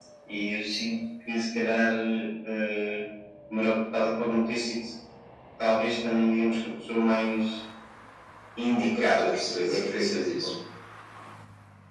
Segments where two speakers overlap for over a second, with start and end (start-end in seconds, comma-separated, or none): 8.8-10.5